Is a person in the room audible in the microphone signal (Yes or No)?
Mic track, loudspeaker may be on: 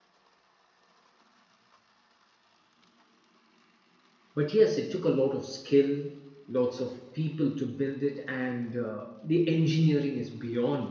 Yes